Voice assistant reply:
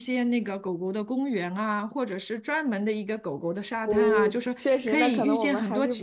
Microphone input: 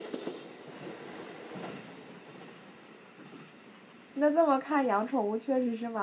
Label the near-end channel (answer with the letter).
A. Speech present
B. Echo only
A